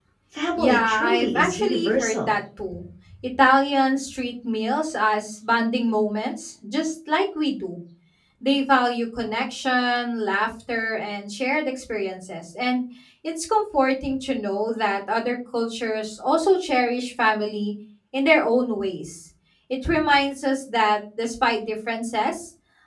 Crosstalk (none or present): present